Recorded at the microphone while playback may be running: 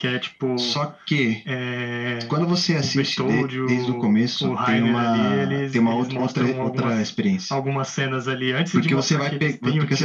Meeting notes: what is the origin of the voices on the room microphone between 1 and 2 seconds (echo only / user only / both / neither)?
echo only